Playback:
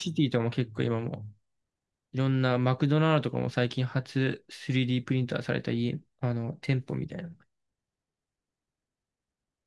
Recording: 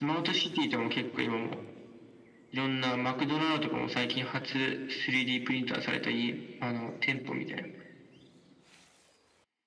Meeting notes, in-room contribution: none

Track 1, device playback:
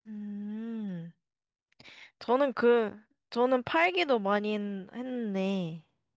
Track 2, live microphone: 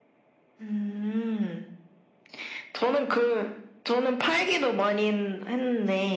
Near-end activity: none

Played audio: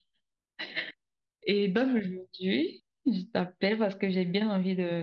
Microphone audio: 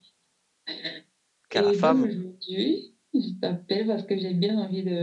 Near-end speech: present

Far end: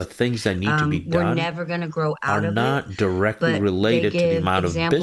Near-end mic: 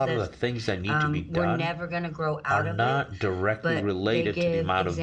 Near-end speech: none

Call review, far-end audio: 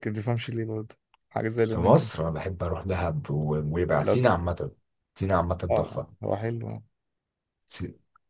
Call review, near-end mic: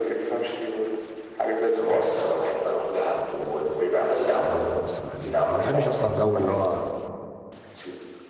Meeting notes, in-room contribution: present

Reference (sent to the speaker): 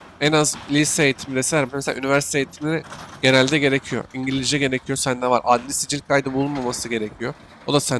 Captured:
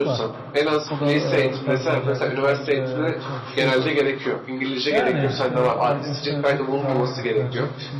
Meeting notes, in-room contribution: present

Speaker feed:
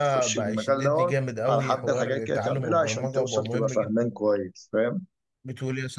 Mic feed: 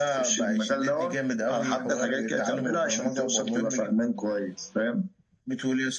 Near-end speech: none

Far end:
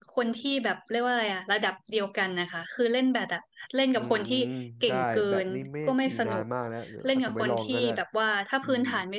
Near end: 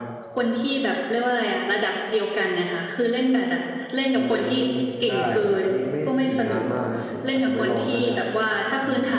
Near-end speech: none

